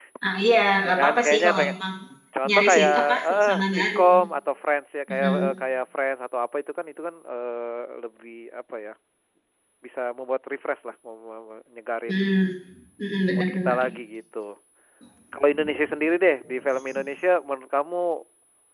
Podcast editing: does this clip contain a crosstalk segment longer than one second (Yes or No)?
Yes